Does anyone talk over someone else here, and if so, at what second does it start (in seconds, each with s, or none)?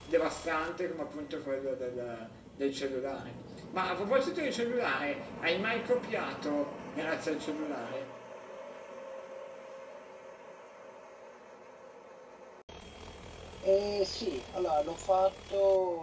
none